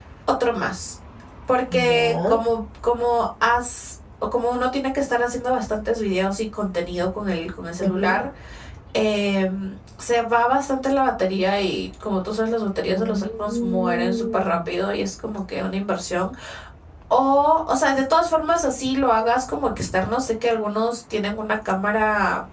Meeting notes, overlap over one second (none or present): present